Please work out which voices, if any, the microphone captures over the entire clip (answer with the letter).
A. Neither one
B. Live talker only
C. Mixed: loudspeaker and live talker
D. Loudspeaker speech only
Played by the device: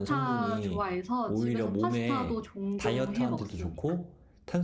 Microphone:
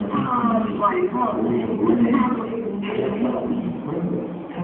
D